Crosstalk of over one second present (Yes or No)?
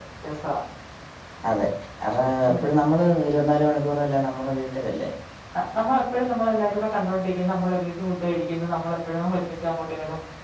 No